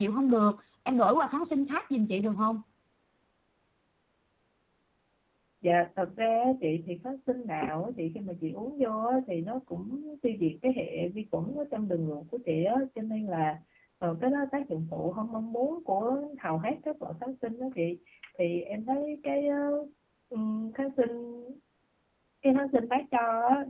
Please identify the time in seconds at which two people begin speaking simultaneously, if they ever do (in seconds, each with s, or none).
none